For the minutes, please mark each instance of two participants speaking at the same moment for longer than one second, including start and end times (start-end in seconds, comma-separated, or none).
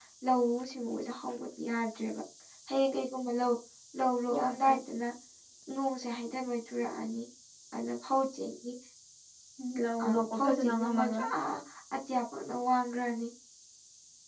10.0-11.3